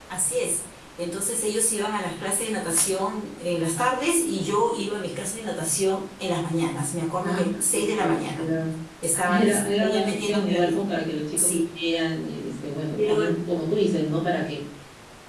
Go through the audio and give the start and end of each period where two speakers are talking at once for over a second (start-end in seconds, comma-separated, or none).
7.2-8.5, 9.3-10.8